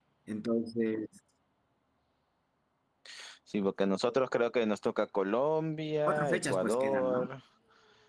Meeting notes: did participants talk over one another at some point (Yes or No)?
Yes